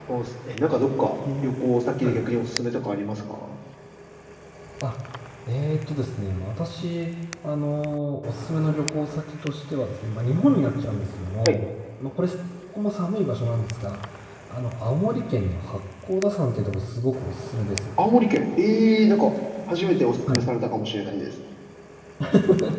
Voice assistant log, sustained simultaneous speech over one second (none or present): none